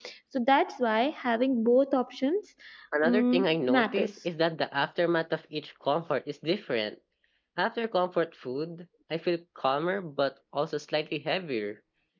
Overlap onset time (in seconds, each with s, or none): 3.0 s